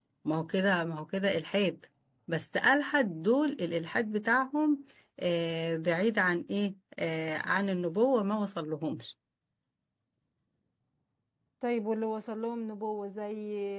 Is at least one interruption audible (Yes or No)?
No